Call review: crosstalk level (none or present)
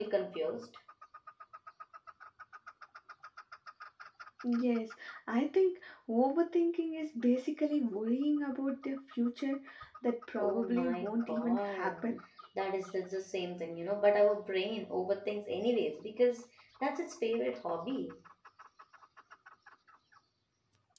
present